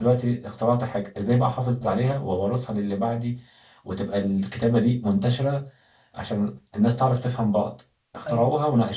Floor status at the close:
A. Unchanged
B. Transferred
A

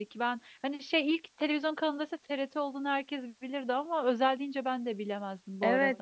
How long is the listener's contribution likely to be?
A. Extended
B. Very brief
A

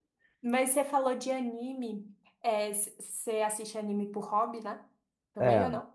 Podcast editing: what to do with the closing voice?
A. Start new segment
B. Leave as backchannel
A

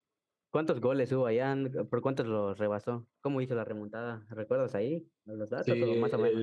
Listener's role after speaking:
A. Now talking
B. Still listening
A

